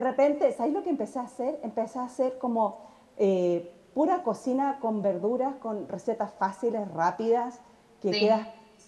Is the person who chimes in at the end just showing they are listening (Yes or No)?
Yes